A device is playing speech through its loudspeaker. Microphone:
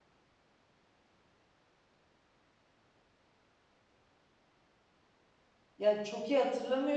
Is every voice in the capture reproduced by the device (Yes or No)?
No